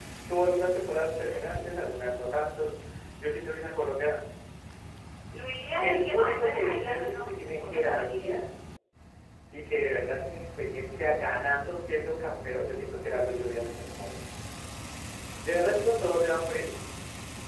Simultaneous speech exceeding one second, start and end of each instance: 5.8-8.3

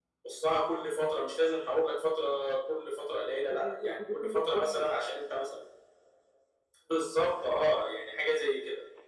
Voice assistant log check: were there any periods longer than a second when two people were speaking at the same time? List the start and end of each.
3.5-5.0

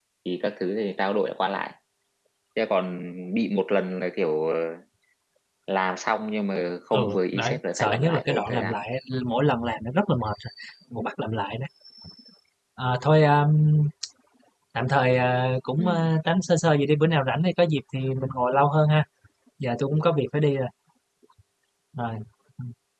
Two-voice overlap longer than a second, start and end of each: 6.9-8.8

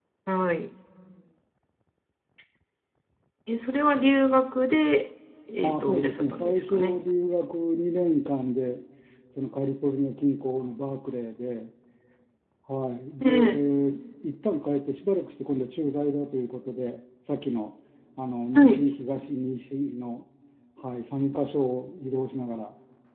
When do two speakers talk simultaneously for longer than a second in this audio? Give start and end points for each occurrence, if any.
5.6-7.0

